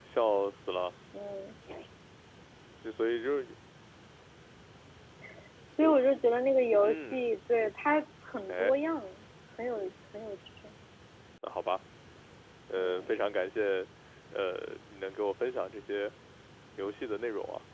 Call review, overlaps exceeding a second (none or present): none